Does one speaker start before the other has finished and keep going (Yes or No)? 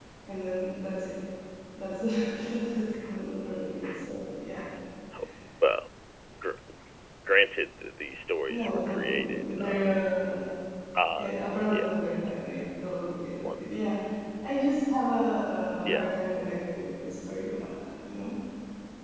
Yes